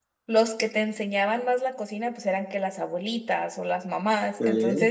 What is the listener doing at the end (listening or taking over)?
listening